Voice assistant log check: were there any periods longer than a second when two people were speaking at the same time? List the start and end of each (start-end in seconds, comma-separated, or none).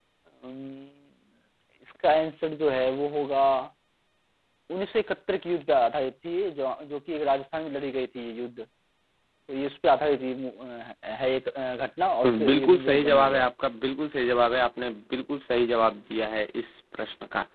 12.2-13.5